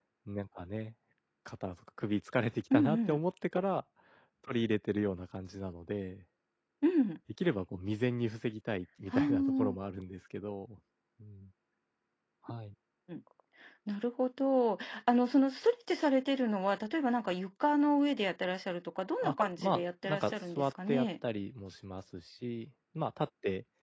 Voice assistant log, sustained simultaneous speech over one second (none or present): present